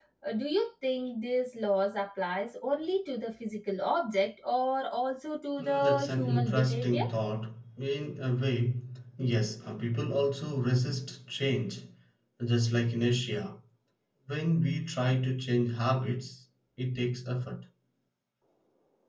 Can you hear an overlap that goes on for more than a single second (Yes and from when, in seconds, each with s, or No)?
Yes, from 5.6 s